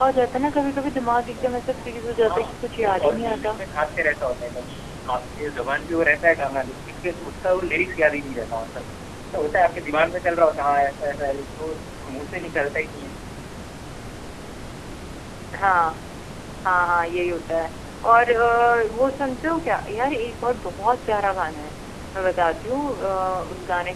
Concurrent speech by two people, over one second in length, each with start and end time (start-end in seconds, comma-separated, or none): 2.2-3.6